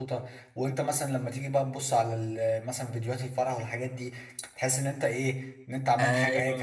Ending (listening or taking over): taking over